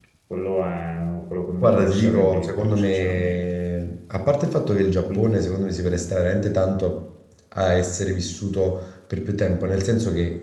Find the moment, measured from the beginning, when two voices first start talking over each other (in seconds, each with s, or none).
1.6 s